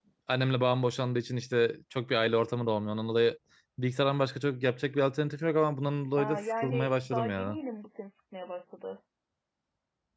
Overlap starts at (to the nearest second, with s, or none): 6 s